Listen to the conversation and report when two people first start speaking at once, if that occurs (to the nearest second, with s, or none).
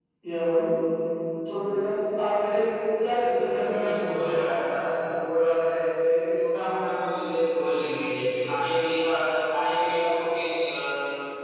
3 s